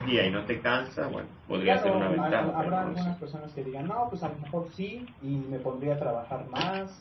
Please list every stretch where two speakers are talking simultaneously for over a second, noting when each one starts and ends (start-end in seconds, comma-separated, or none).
1.6-3.1